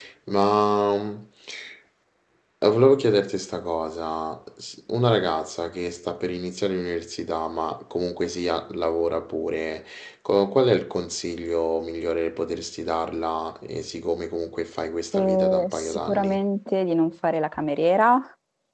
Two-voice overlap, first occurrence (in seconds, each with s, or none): 15.1 s